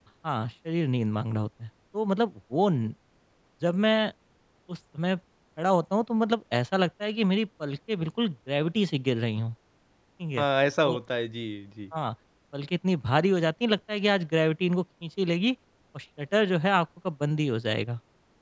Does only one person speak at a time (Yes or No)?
Yes